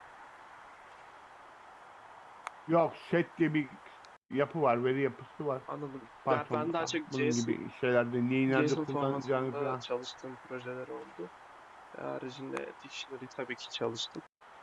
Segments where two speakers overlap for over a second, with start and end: 6.3-7.5, 8.5-9.8

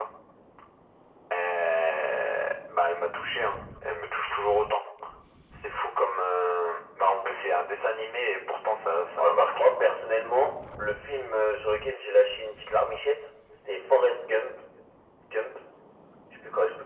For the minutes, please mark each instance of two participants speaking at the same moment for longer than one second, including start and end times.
none

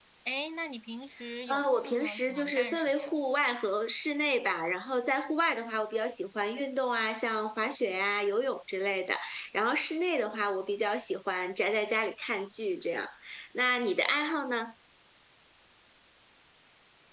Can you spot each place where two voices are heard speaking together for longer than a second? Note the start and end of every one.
1.5-3.1

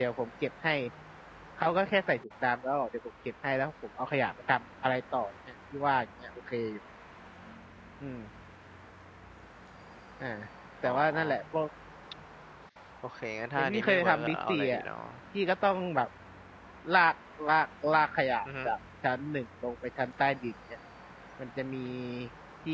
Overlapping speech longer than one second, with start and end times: 13.6-14.8

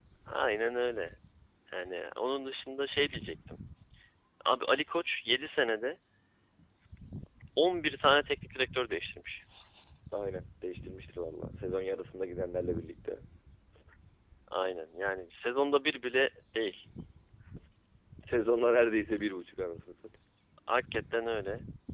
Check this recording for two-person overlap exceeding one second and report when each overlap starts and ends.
none

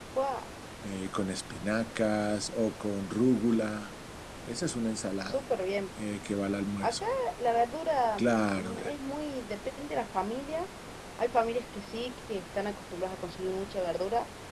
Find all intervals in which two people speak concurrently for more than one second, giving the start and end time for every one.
none

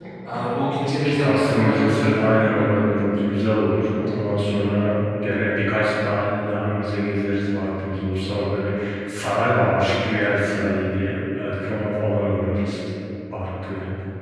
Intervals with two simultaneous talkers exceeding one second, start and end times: 0.8-2.8

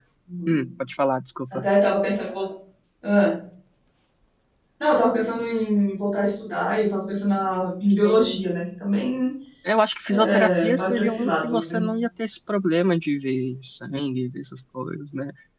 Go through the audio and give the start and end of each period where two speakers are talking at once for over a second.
10.1-11.8

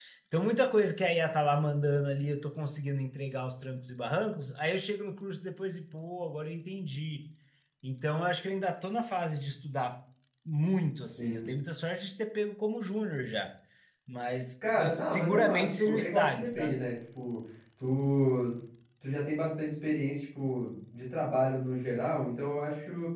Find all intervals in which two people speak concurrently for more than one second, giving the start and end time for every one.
14.7-16.8

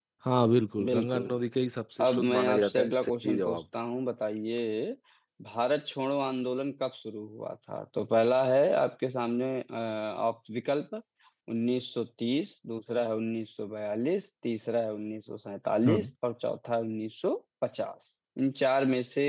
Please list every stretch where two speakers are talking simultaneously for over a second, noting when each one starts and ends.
2.0-3.6

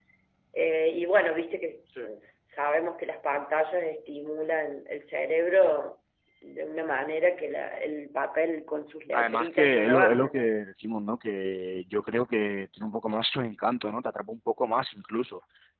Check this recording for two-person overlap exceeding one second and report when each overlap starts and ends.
9.1-10.5

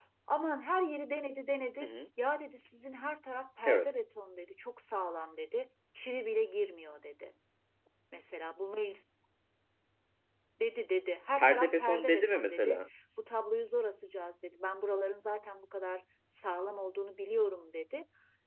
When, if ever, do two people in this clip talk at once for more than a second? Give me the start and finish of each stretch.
11.4-12.8

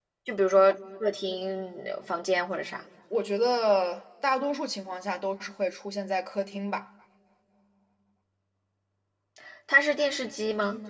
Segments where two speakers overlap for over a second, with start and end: none

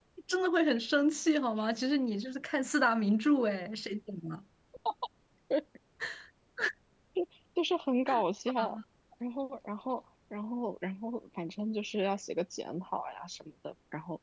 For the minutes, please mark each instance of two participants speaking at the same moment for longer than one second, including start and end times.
none

